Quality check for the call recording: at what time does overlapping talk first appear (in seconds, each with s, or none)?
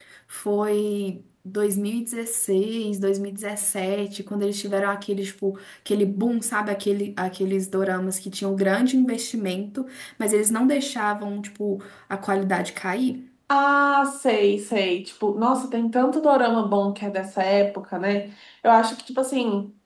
none